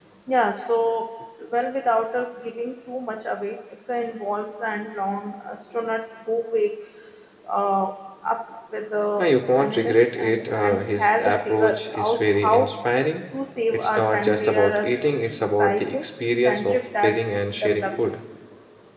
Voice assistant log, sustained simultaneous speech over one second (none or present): present